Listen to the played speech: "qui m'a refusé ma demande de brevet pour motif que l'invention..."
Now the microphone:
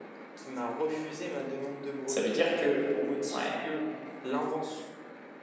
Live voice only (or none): Ça veut dire que, ouais,